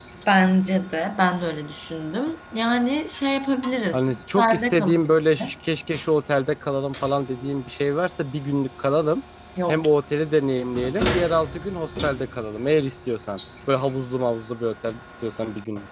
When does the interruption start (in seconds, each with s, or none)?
3.9 s